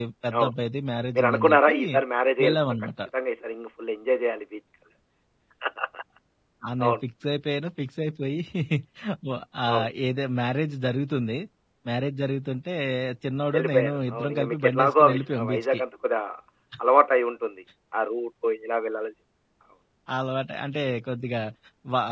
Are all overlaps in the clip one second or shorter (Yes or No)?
No